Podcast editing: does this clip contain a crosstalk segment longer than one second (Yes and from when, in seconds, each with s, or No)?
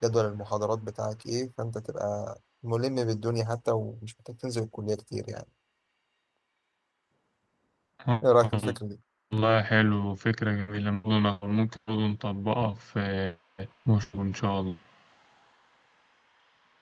No